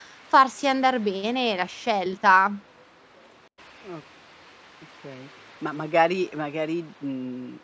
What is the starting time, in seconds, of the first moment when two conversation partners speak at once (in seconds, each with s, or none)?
none